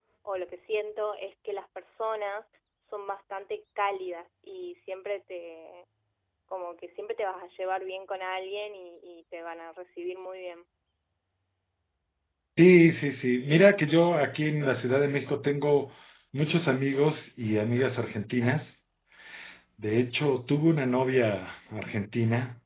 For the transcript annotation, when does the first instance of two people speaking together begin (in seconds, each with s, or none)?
none